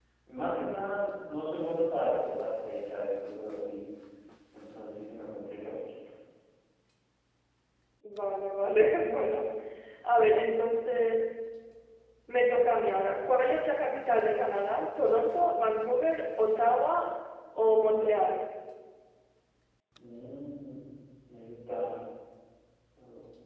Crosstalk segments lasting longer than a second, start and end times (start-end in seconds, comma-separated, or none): none